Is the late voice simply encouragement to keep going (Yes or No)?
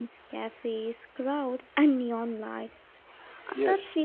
Yes